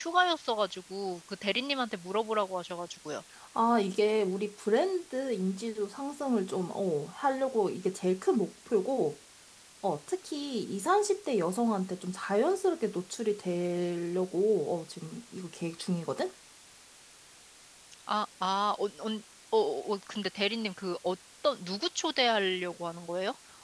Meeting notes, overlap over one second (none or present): none